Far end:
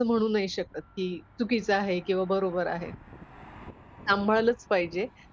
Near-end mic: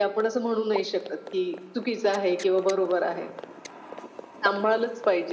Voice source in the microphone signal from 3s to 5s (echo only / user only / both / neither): echo only